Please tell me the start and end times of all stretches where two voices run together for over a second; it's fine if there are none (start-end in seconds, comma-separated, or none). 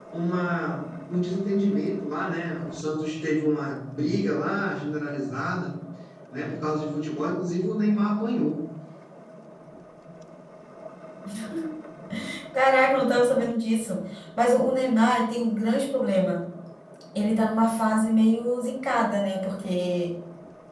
none